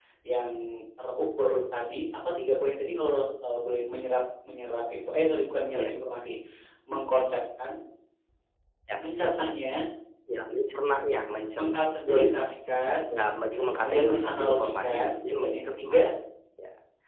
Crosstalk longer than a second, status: present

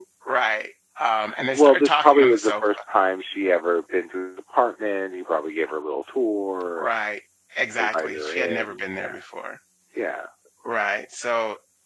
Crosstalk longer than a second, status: present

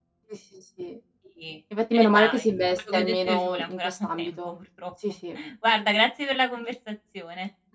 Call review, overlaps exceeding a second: present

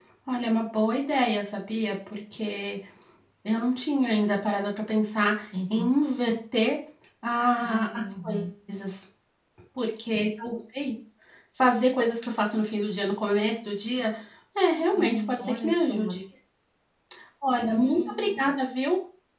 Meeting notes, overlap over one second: present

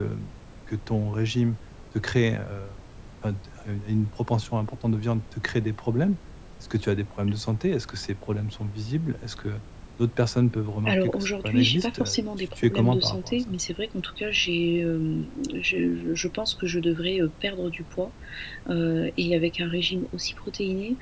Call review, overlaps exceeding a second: present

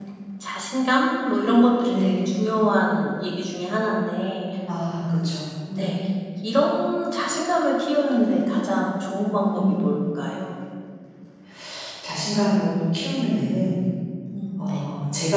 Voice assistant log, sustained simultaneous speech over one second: none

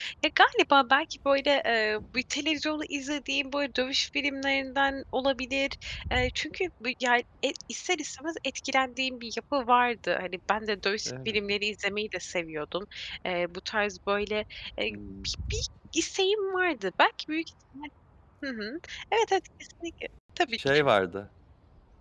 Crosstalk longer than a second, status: none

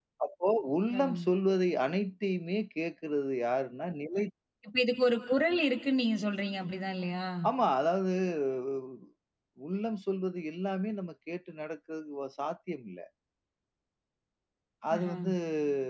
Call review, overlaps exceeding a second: none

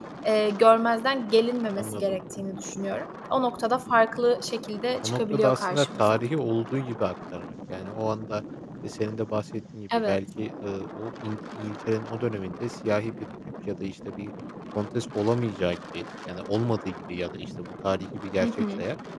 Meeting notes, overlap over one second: present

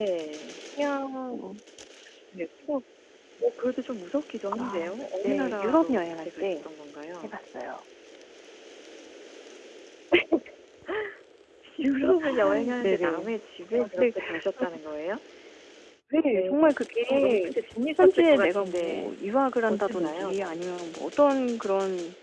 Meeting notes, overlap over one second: present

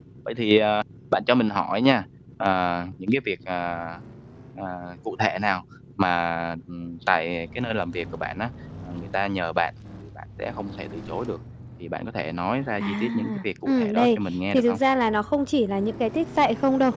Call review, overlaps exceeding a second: present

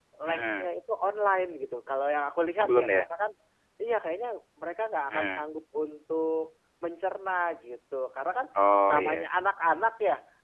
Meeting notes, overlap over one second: none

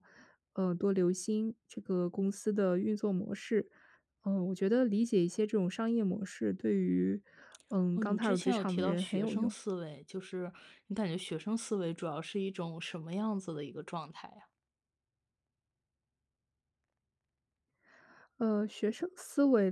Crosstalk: present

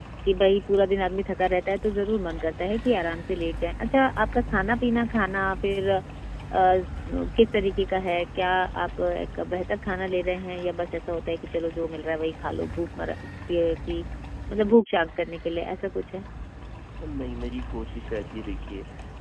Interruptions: none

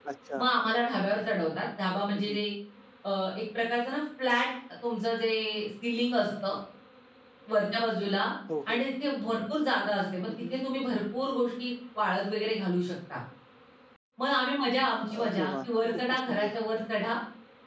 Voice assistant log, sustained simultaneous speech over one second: present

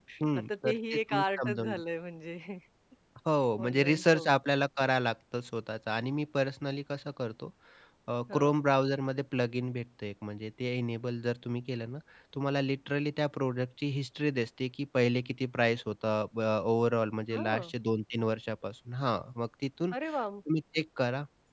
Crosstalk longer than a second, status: present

